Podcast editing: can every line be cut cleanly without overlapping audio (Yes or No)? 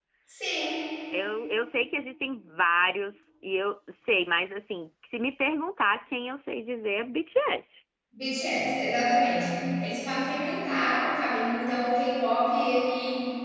Yes